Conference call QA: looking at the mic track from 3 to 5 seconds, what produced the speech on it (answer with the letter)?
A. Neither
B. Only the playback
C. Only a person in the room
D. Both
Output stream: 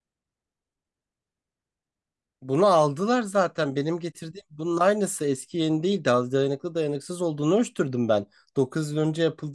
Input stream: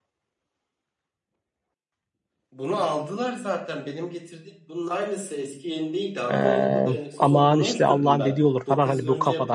B